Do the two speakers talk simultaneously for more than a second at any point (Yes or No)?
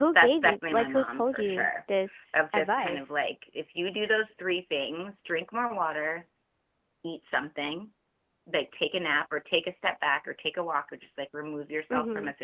Yes